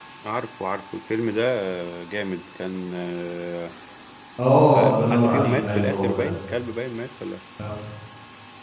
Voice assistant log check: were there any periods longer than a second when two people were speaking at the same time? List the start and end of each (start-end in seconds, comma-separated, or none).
4.7-6.2